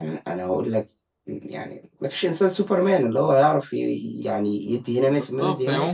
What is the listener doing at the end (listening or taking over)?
taking over